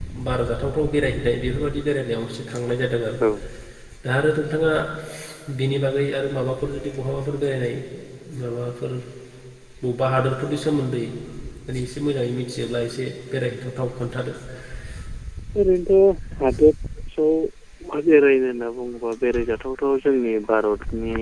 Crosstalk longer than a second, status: none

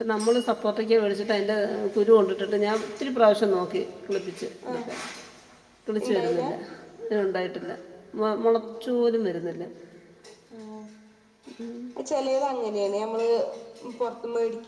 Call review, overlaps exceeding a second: none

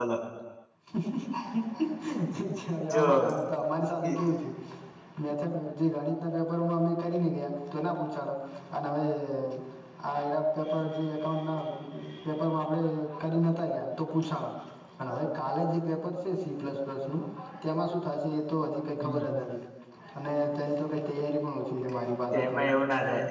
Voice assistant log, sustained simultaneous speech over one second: none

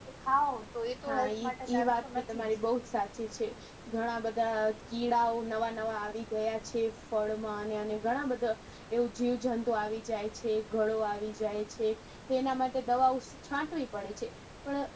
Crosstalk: present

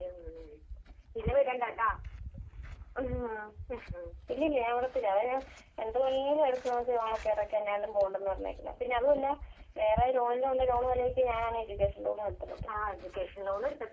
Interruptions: none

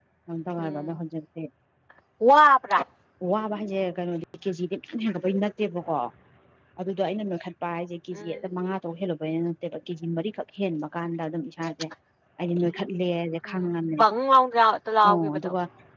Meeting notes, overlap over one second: none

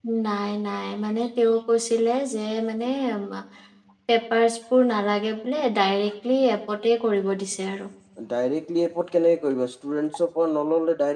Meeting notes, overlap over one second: none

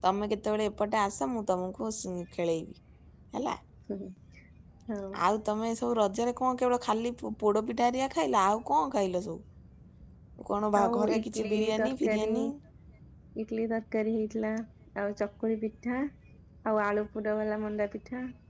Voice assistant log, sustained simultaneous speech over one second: present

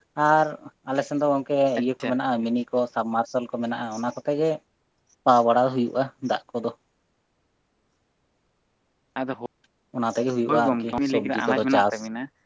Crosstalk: present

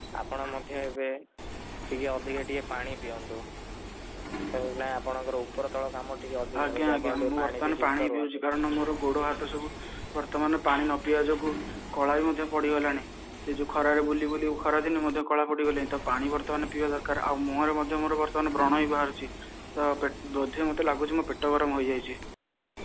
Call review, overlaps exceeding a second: present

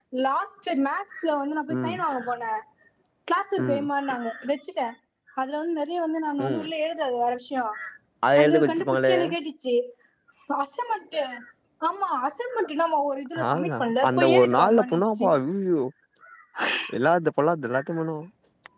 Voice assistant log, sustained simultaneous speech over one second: present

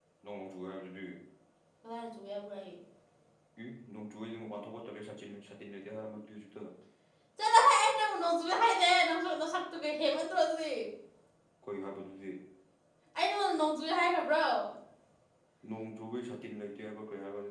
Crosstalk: none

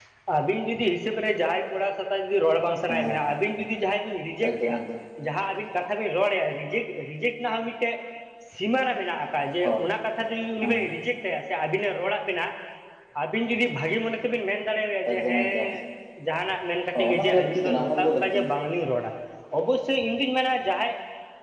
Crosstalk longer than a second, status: present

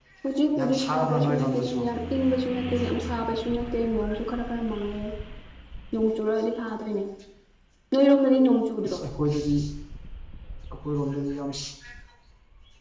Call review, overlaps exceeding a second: present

